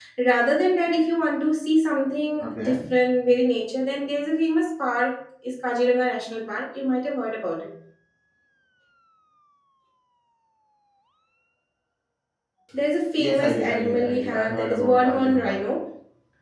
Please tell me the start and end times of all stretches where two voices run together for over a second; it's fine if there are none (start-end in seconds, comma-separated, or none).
13.2-15.6